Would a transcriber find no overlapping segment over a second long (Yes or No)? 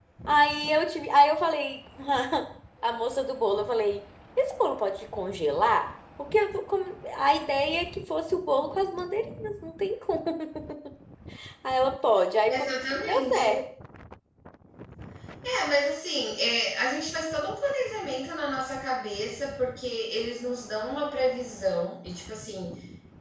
Yes